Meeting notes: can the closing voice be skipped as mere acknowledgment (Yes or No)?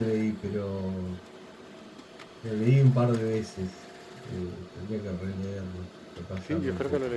No